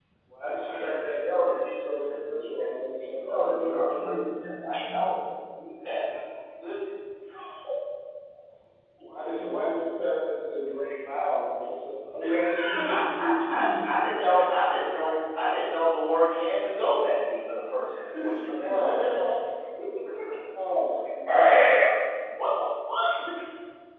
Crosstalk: present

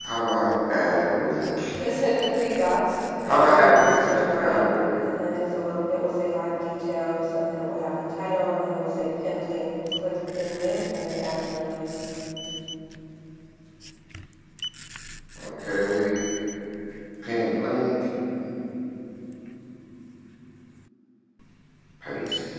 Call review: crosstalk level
present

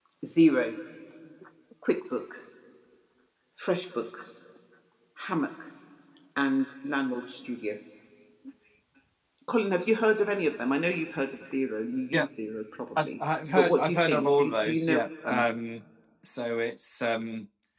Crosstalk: present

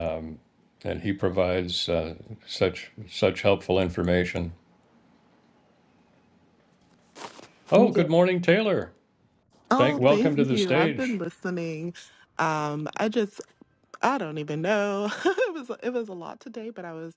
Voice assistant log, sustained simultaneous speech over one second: present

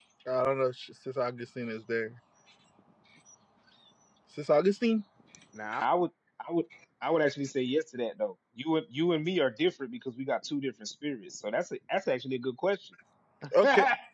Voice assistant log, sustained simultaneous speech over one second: none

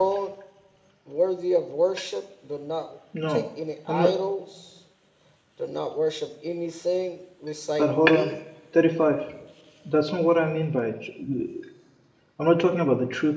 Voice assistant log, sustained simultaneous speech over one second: none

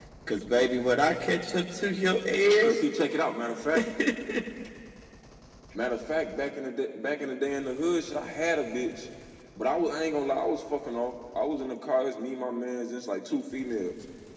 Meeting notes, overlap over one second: none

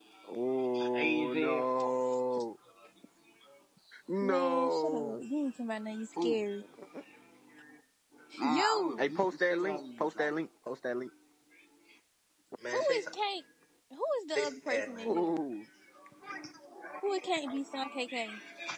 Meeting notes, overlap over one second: present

